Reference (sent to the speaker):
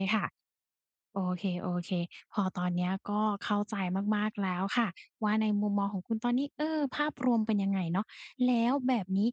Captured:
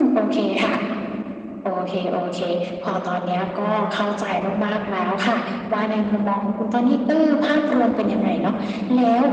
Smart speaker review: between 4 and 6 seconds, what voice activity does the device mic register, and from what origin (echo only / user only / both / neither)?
echo only